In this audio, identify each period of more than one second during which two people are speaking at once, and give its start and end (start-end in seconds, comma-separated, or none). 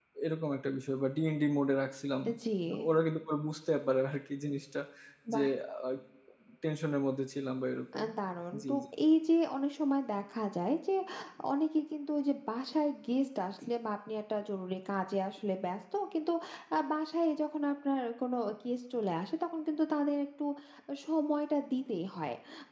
none